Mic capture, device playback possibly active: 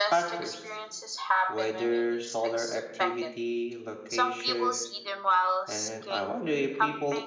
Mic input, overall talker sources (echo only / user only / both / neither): both